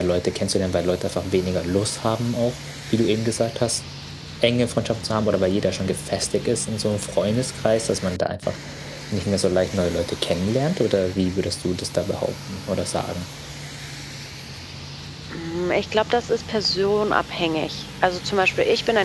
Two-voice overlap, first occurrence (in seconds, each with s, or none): none